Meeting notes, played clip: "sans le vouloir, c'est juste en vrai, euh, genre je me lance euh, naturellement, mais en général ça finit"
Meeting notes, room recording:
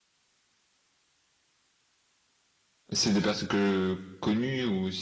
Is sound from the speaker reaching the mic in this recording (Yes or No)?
No